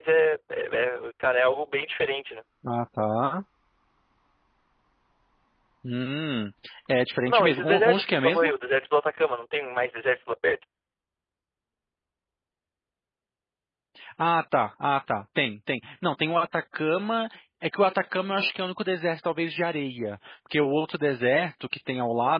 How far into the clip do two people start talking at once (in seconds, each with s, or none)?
7.3 s